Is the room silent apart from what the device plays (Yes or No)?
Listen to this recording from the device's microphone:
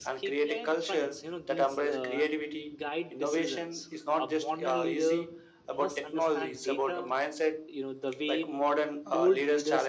No